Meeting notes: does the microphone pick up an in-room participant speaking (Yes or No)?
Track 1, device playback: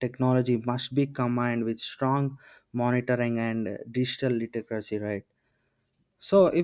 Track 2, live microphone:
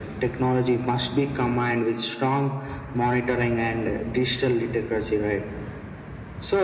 No